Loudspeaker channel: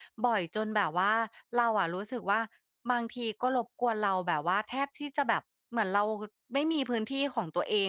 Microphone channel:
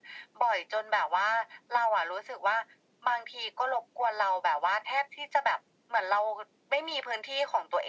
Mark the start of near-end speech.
none

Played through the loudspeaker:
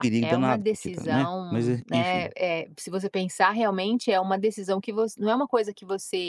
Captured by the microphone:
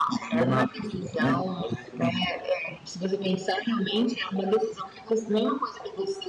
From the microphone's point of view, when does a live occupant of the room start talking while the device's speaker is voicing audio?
none

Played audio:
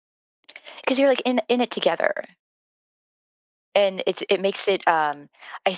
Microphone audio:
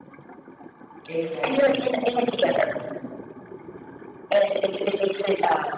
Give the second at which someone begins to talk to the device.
1 s

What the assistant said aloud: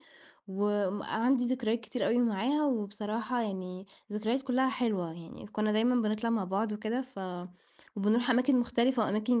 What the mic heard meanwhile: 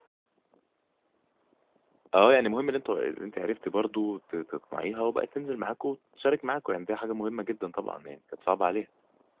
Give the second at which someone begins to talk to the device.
2 s

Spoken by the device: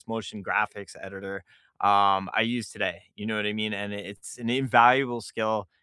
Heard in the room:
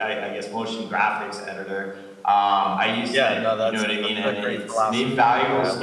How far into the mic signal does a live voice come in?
3 s

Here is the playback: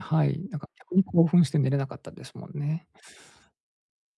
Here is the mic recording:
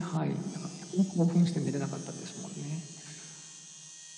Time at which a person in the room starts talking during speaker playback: none

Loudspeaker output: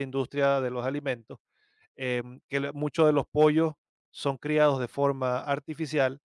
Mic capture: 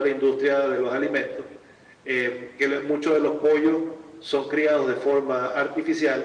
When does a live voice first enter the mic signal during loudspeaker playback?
none

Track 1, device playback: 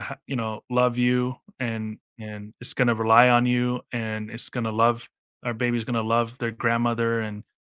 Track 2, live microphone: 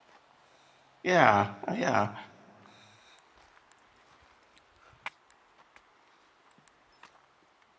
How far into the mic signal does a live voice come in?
1 s

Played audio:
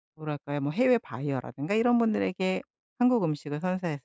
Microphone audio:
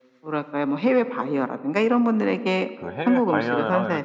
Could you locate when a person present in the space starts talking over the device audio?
3 s

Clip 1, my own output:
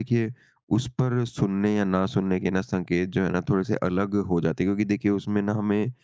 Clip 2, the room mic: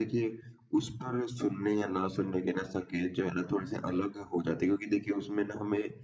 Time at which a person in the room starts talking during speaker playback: none

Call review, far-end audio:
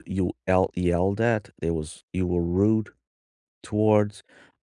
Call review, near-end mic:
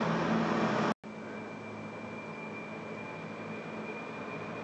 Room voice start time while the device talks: none

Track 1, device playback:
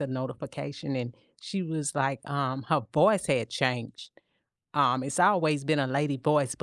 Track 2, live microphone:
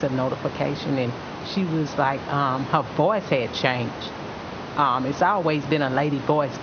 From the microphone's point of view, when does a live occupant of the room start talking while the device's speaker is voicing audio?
none

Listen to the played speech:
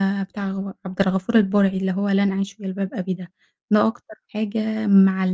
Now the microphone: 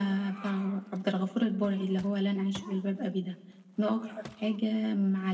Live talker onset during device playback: none

